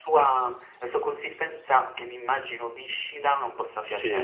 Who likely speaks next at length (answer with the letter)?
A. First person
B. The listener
B